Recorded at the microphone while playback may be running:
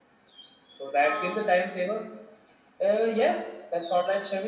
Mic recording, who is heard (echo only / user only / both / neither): both